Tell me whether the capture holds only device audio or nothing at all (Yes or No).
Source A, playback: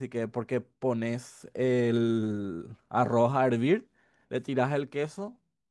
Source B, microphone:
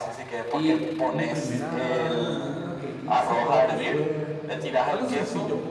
No